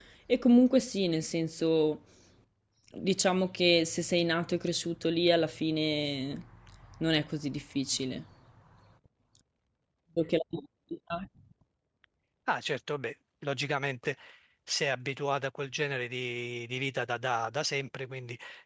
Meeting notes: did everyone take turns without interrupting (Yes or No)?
Yes